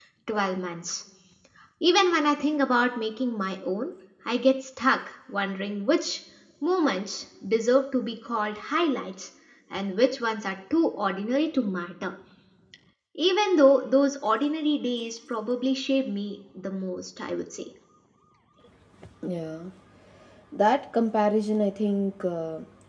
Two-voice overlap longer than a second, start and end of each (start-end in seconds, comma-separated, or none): none